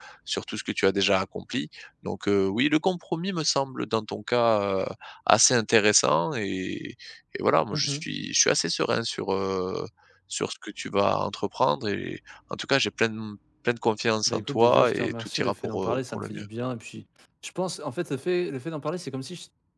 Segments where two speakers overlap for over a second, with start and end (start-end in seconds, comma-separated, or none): 14.3-16.4